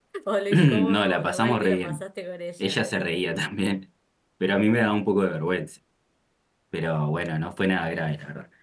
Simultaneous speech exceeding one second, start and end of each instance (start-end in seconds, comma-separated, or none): 0.5-2.0